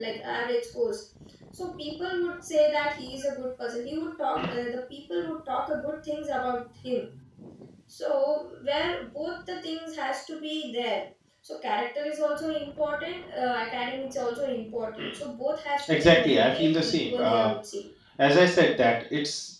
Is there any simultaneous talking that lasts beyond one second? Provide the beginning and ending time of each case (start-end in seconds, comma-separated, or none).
15.9-17.5